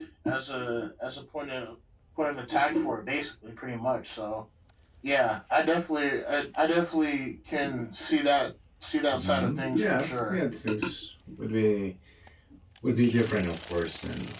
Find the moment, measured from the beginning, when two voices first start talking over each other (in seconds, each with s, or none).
9.1 s